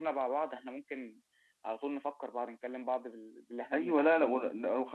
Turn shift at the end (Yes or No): Yes